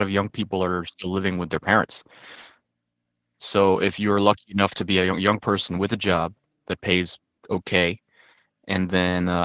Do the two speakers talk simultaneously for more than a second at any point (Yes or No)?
No